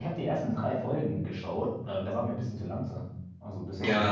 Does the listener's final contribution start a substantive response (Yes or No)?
No